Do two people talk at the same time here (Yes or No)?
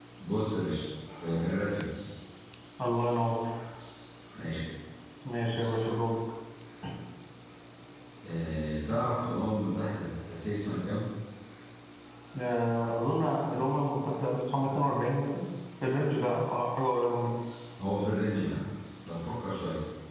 No